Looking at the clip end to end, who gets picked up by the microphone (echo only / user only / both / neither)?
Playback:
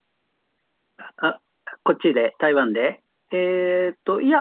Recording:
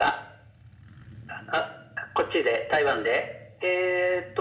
echo only